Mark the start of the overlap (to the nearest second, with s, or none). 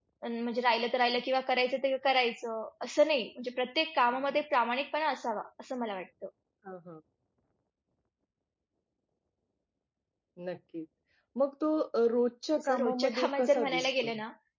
13 s